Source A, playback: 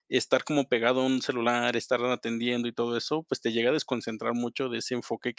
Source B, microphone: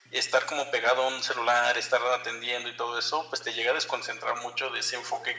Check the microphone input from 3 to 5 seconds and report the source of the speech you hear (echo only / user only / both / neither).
echo only